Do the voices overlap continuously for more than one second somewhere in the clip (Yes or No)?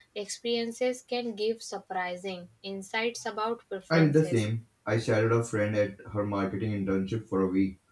No